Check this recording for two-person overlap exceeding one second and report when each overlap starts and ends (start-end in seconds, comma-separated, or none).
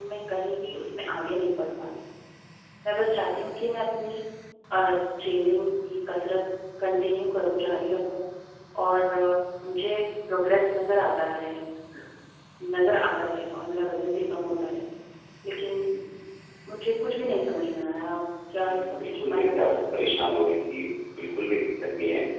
18.6-20.3